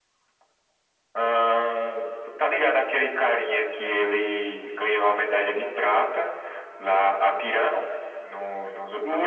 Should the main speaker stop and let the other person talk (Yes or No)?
Yes